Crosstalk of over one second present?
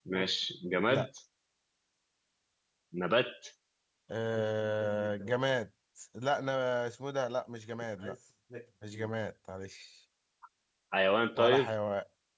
No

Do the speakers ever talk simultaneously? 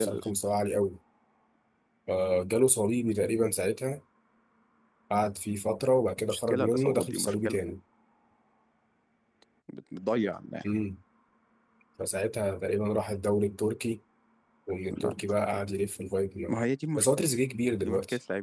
Yes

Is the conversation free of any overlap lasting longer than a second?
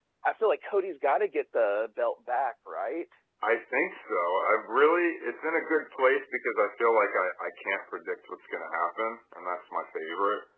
Yes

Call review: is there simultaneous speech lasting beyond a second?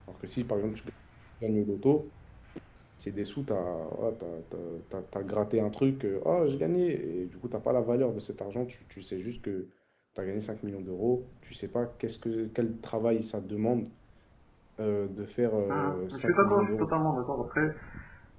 Yes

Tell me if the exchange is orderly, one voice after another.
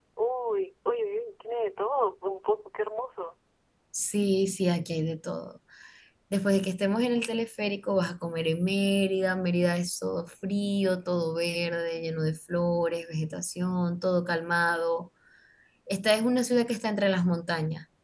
Yes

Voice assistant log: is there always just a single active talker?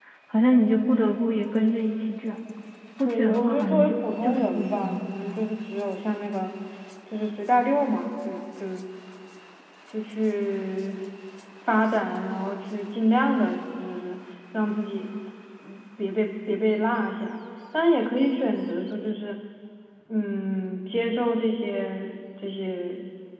No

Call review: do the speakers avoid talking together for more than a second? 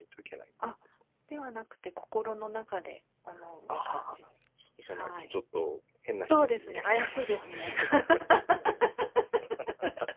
No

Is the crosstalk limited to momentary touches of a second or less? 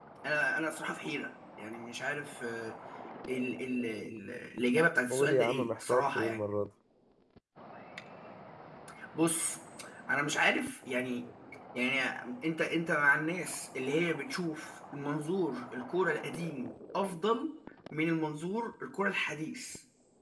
No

